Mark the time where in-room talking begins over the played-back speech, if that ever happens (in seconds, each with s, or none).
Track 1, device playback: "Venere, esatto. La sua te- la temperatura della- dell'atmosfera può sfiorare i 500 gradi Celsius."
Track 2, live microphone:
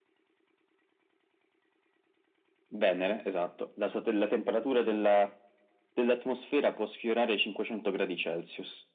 none